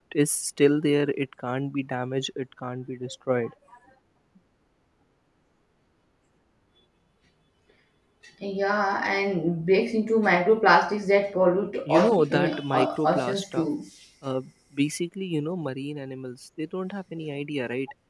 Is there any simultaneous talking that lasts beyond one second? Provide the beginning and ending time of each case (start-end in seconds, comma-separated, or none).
11.9-13.7